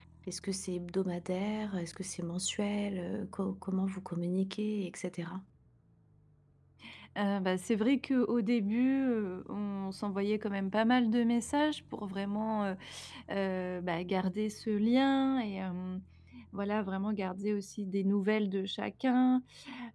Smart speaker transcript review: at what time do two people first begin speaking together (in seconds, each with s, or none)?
none